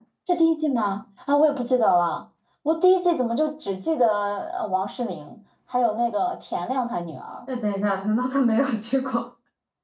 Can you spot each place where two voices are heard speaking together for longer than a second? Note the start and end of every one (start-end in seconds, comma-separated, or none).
none